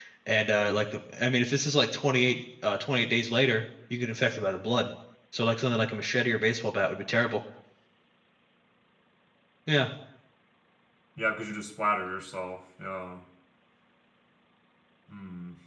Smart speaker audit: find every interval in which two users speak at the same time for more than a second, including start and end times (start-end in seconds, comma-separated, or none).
none